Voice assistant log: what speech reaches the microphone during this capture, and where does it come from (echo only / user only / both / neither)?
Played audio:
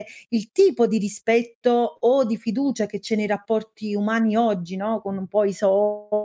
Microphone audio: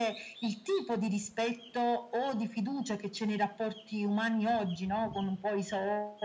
echo only